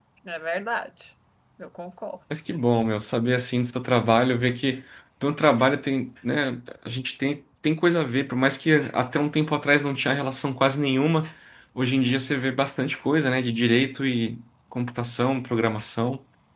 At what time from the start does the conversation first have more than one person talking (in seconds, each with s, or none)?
none